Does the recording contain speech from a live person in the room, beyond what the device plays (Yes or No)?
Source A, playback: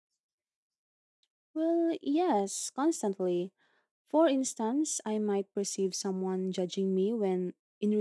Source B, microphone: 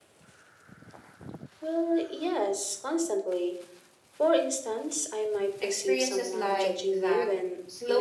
Yes